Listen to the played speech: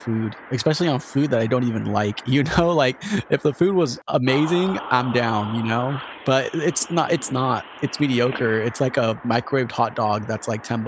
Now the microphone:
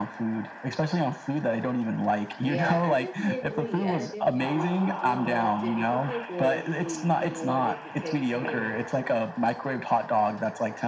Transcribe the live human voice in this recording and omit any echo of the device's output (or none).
Yeah, I definitely agree. I definitely agree. You do want to, if you pay for your food, you want it to taste good.